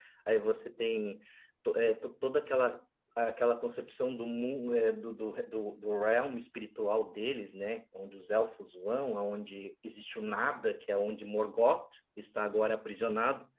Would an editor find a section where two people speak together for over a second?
No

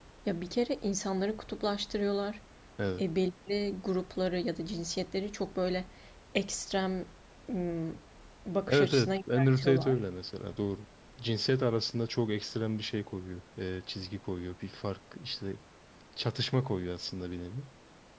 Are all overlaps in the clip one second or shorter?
No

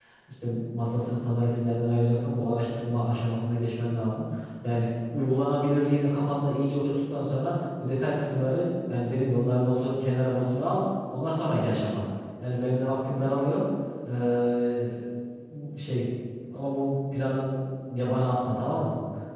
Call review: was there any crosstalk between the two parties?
No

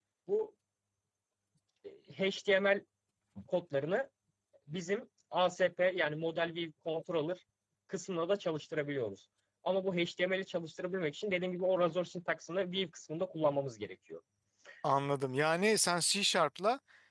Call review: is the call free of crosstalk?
Yes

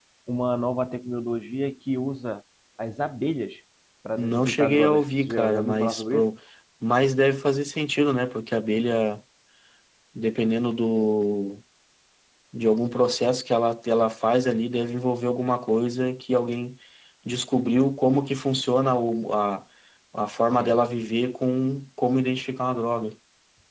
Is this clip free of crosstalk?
No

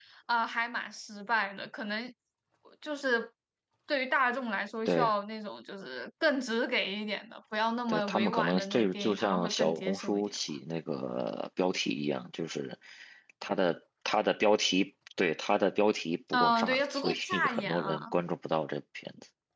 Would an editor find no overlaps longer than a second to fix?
No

